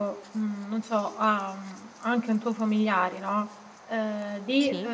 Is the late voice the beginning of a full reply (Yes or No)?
No